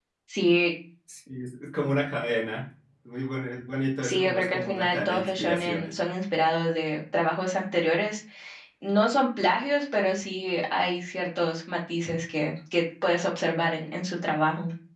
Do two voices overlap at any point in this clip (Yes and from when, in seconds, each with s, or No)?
Yes, from 4.0 s